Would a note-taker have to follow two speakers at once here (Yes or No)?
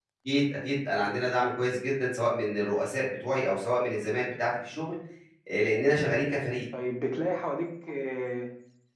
No